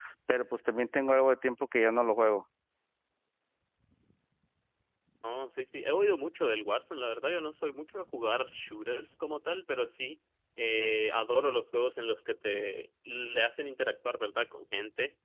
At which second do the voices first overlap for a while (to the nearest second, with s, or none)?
none